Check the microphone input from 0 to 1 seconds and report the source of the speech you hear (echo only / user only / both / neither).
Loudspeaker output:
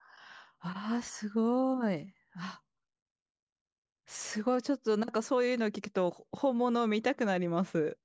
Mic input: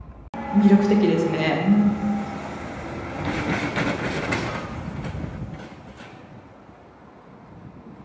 user only